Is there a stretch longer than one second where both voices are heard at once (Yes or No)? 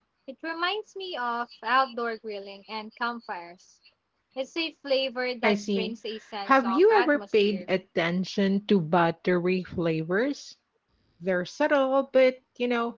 Yes